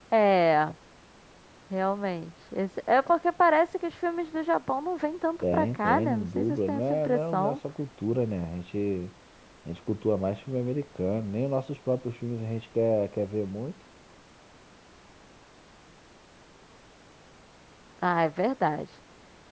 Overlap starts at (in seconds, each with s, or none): 5.4 s